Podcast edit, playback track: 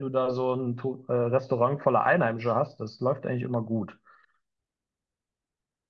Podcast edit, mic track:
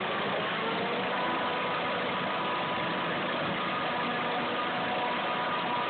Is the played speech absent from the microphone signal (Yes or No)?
Yes